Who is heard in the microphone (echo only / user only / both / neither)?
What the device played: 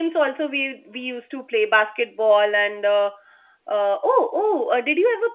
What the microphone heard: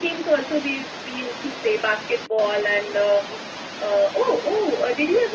echo only